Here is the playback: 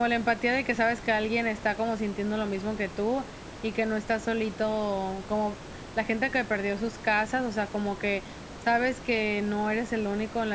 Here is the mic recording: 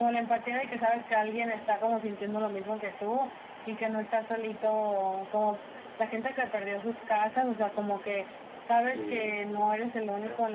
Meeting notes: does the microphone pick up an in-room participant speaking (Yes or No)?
Yes